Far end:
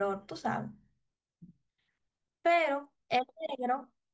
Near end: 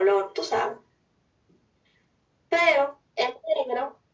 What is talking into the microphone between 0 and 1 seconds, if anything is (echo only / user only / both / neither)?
echo only